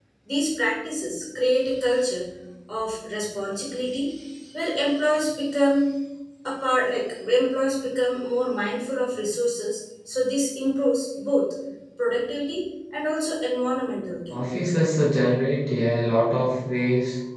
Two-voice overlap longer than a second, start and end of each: none

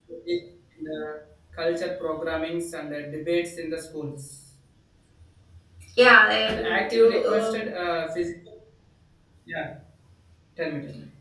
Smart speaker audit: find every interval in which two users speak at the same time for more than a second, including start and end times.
6.4-7.6

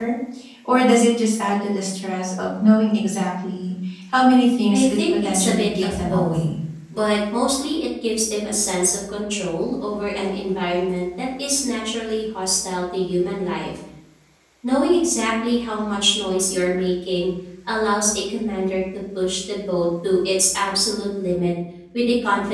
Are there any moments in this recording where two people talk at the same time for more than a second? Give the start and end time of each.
4.7-6.4

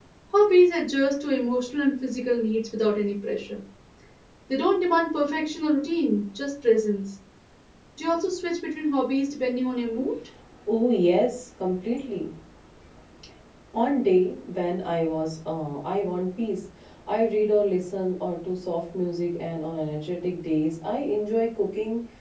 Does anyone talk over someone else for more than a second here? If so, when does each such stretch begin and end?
none

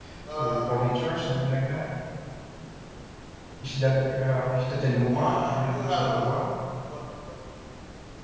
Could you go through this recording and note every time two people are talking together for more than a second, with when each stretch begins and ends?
5.1-6.4

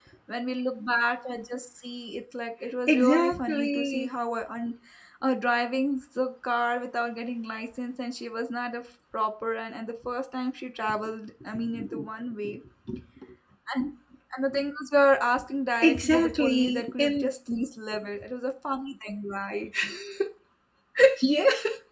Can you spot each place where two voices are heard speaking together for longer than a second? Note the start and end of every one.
2.9-4.1, 15.8-17.3

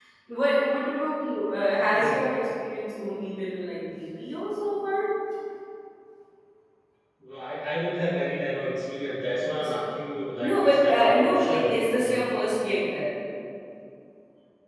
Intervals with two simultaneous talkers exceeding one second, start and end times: 10.4-12.3

